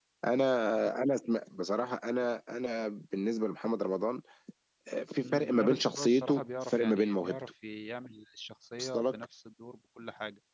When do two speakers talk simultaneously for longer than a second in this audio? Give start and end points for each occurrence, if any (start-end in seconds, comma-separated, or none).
5.2-7.4